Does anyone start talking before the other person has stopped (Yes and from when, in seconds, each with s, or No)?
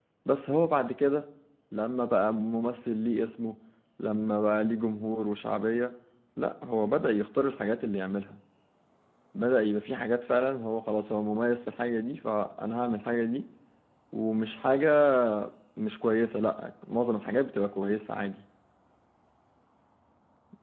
No